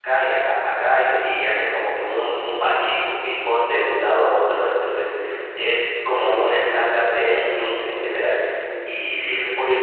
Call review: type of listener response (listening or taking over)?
taking over